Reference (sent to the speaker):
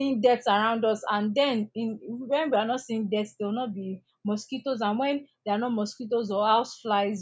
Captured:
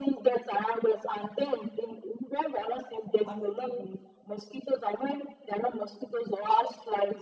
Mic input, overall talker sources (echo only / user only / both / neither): both